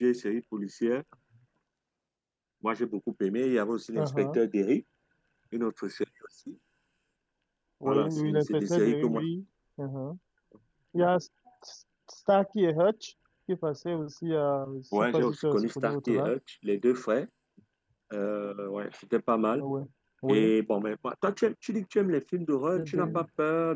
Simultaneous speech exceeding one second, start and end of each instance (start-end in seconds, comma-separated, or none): 7.8-9.2, 15.0-16.3